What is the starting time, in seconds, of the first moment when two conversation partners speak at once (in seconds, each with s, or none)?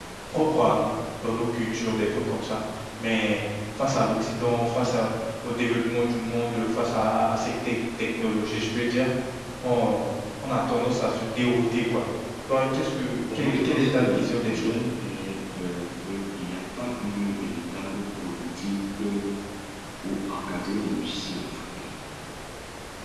13.3 s